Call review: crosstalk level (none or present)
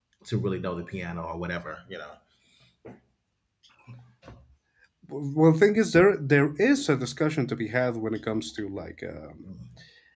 none